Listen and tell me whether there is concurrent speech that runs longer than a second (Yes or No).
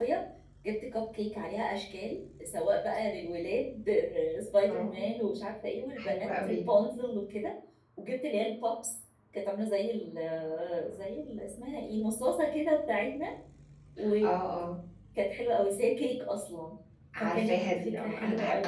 Yes